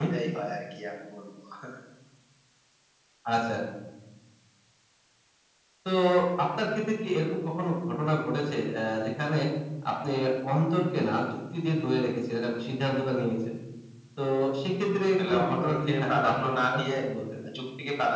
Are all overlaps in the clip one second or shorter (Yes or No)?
No